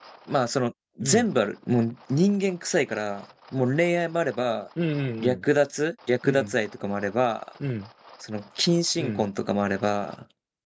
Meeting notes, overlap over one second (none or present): none